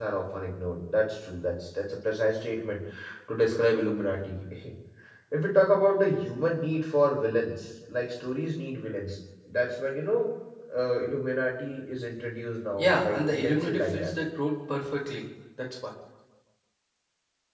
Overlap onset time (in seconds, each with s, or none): 12.8 s